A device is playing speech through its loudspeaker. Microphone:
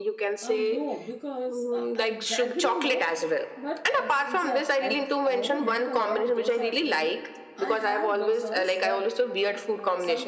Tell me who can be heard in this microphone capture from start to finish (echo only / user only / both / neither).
both